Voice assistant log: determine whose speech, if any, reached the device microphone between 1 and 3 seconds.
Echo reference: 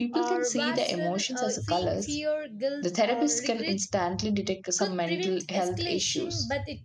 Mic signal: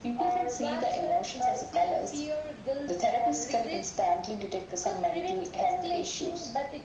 echo only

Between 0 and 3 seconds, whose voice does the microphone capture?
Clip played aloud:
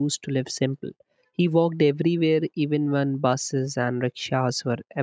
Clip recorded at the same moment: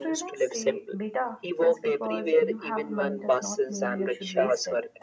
both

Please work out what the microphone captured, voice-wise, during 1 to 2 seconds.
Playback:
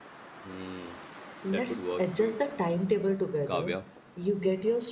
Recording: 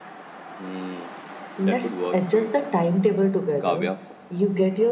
echo only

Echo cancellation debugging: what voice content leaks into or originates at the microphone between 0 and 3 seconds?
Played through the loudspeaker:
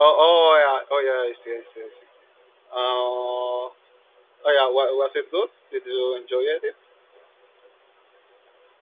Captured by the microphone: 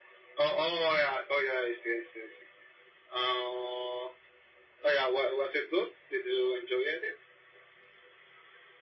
echo only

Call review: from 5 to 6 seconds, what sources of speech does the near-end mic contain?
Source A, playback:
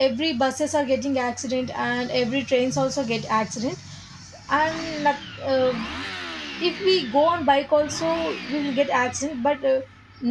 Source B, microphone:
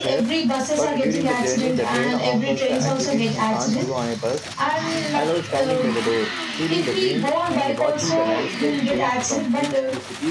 both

